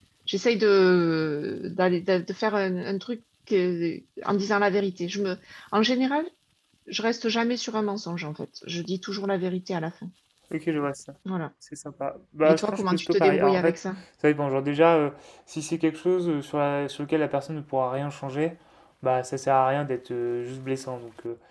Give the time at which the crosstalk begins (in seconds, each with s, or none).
12.4 s